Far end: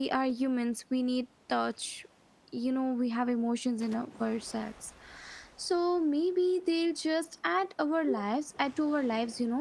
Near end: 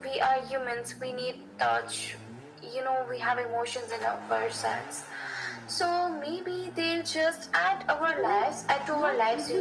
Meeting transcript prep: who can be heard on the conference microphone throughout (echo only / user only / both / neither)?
both